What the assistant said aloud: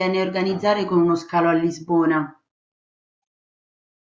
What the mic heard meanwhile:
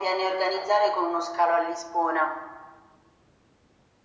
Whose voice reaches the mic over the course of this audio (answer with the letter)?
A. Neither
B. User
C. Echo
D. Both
C